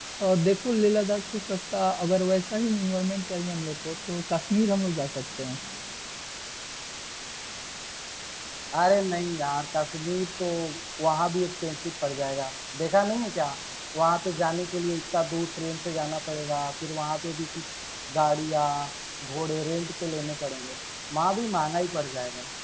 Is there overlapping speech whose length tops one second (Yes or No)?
No